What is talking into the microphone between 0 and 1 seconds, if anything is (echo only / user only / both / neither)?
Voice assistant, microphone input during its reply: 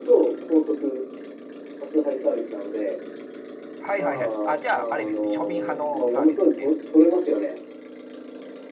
echo only